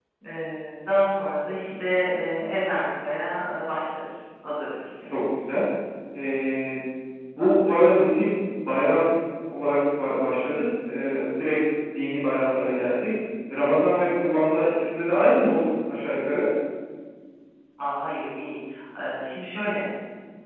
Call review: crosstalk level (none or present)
none